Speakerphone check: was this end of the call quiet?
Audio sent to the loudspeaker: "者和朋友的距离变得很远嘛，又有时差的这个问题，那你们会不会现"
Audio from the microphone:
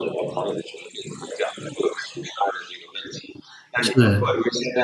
No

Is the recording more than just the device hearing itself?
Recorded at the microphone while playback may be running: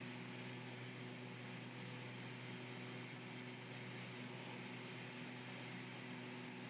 No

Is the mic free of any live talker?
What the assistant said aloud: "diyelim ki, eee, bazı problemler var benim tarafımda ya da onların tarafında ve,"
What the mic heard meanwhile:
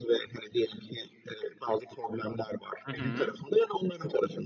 No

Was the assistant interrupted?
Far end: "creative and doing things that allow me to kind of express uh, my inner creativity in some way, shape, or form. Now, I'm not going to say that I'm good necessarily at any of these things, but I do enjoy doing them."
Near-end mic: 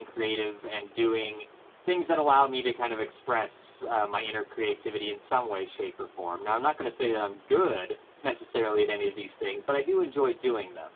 No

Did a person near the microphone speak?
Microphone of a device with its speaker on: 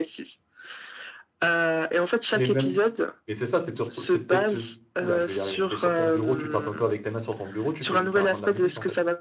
Yes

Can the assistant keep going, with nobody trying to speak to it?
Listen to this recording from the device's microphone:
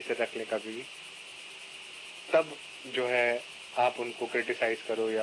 Yes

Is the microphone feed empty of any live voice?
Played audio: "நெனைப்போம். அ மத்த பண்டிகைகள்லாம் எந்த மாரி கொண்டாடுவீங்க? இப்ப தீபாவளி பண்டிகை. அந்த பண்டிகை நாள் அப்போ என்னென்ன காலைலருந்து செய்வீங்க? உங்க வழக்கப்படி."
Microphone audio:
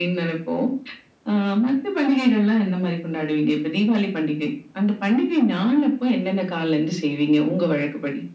Yes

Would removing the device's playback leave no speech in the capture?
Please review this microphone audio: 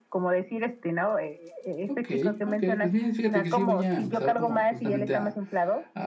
No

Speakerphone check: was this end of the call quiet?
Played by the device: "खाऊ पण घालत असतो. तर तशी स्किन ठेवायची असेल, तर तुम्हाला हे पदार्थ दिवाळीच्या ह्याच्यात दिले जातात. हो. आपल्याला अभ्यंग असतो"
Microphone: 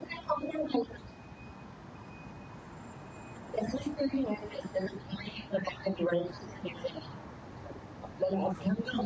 Yes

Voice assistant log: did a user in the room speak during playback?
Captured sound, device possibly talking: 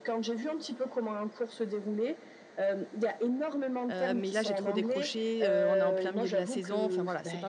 Yes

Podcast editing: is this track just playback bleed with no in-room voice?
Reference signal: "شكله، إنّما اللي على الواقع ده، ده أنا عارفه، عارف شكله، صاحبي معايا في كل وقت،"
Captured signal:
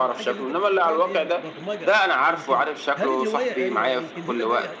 No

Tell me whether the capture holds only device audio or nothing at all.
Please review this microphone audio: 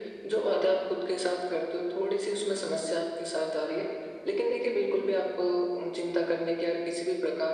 Yes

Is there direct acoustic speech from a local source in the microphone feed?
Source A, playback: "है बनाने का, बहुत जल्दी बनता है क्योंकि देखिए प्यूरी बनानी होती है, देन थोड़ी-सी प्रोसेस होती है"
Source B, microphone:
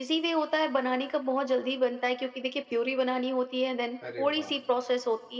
Yes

